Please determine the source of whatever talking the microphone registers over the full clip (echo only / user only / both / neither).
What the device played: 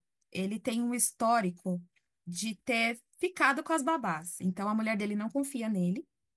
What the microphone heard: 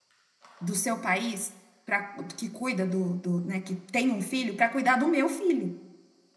user only